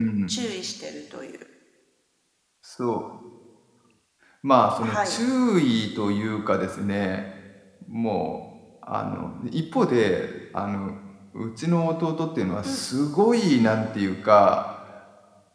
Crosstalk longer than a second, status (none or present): none